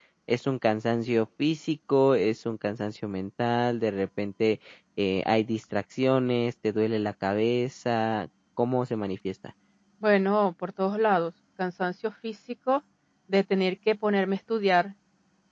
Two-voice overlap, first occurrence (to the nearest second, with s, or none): none